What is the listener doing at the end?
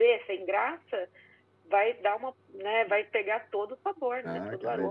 taking over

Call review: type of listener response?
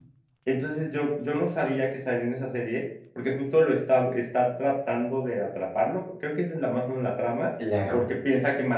listening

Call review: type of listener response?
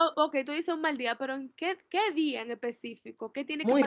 taking over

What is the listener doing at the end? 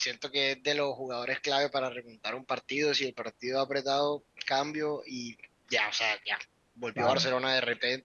listening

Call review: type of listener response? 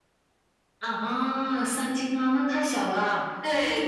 taking over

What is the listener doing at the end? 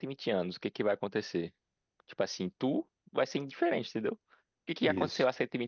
listening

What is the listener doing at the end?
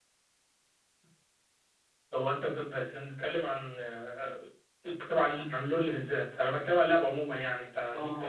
taking over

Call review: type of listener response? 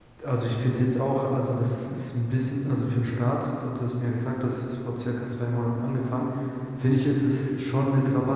listening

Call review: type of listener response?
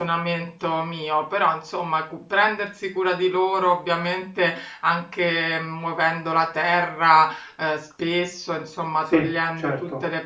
listening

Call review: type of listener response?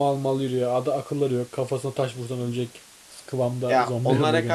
taking over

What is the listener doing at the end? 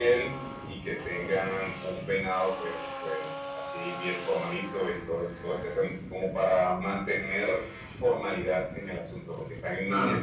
listening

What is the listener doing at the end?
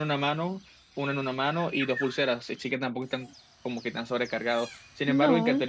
listening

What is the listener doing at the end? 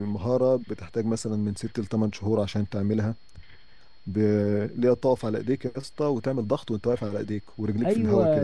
taking over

